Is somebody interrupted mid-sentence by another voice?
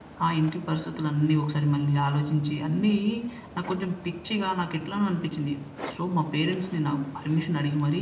No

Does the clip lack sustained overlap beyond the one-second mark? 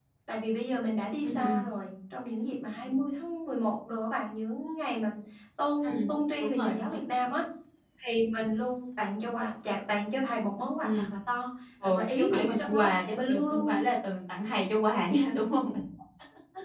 No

